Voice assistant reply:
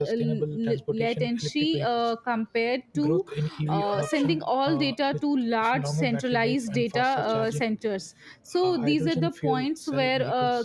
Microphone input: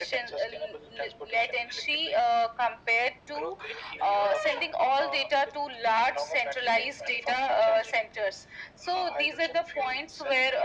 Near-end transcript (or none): none